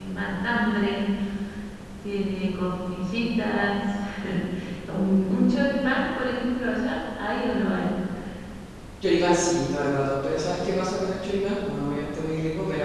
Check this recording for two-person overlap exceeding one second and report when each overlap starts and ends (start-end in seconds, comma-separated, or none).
none